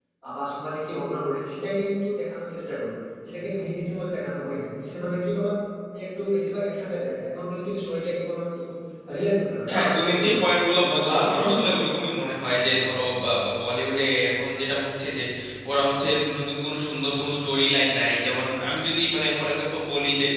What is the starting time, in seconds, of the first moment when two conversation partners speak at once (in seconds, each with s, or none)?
9.7 s